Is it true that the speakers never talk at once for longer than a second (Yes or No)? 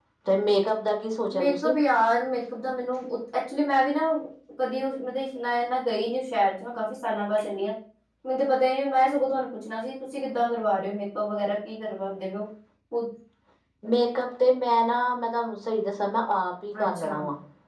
Yes